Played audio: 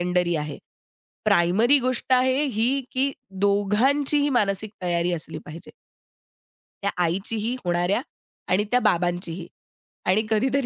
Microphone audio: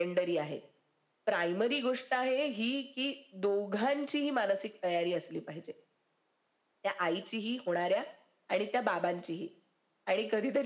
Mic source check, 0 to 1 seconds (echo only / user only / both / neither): echo only